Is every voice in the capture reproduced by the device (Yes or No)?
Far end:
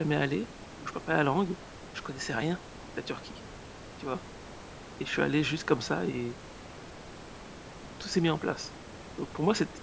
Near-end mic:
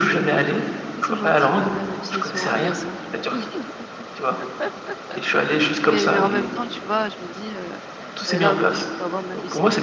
No